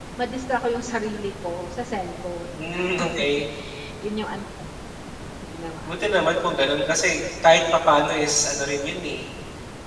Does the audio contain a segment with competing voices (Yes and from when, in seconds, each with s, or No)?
No